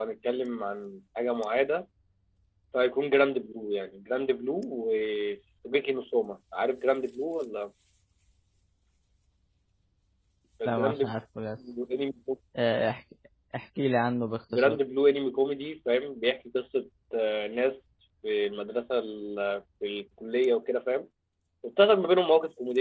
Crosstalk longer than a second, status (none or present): none